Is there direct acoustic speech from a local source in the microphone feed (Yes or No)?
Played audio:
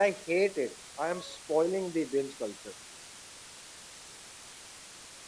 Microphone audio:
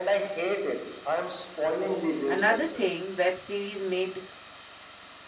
Yes